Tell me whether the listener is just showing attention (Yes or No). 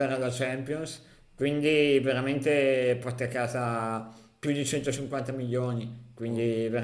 Yes